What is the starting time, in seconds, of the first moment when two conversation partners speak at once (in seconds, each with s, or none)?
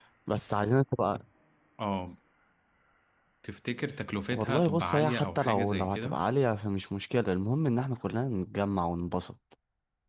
4.3 s